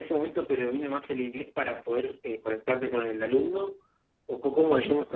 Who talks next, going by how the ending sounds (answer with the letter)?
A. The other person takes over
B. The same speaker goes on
A